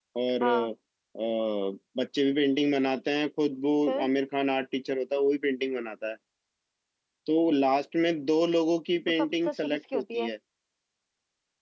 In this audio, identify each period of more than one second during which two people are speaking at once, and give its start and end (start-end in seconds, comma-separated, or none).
9.1-10.3